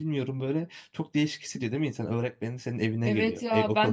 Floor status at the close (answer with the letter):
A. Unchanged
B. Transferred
B